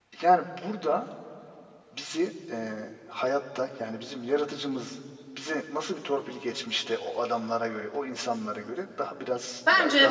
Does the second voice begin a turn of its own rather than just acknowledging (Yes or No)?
Yes